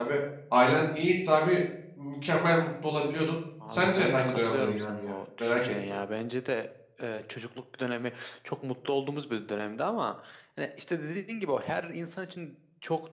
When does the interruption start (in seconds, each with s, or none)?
3.6 s